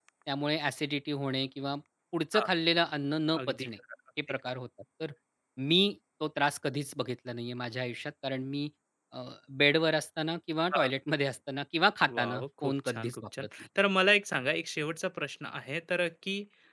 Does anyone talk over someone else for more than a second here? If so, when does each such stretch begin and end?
12.1-13.5

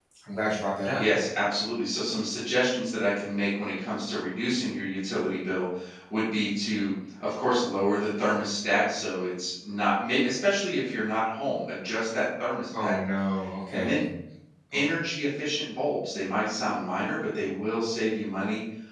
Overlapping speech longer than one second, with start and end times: none

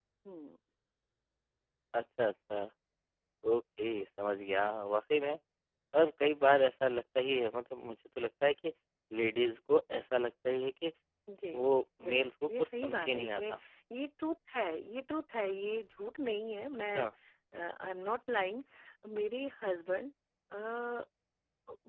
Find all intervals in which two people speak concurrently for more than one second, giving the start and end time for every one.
12.1-13.5

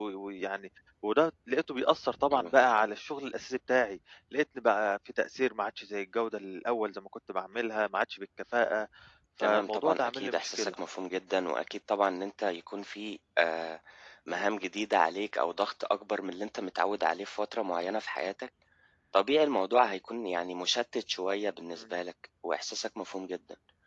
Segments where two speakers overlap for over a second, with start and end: 9.4-10.7

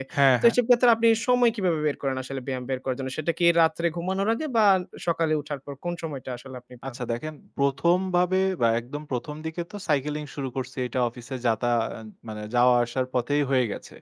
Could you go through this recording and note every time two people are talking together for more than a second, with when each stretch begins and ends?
none

